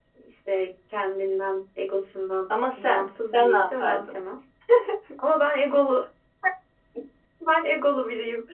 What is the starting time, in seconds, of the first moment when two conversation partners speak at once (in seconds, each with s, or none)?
2.8 s